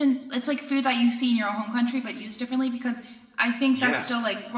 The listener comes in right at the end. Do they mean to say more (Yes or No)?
No